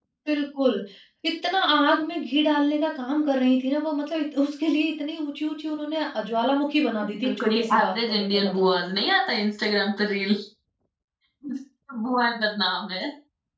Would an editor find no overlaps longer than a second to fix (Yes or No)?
No